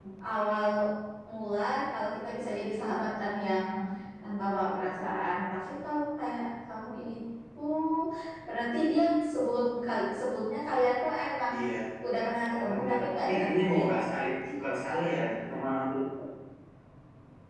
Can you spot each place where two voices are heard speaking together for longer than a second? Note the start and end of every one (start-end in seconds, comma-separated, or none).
12.5-13.9